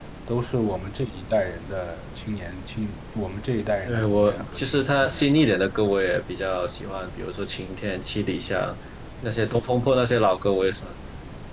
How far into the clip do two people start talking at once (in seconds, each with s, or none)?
3.9 s